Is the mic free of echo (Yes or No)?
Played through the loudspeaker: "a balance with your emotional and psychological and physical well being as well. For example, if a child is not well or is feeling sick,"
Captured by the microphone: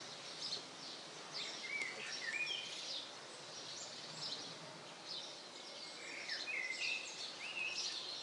Yes